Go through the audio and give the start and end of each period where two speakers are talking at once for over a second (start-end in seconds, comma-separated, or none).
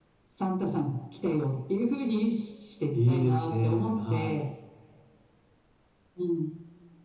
2.9-4.4